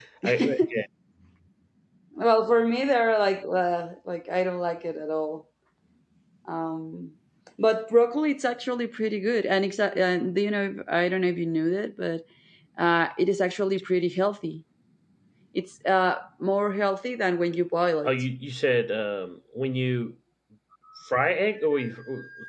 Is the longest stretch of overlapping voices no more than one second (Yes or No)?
Yes